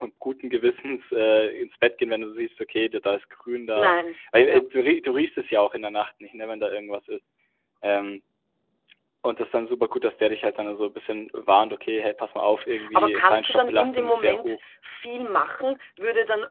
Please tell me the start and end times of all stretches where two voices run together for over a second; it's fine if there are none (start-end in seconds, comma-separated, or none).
12.9-14.6